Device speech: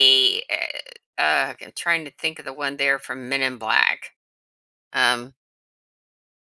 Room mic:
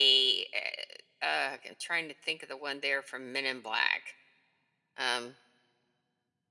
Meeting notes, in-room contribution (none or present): none